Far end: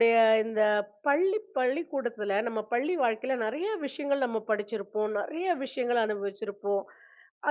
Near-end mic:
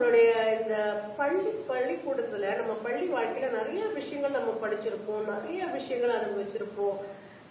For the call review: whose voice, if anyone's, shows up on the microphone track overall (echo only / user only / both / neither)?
echo only